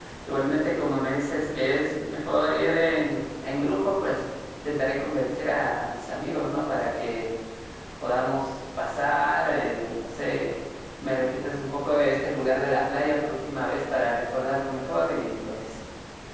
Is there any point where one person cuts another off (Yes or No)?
No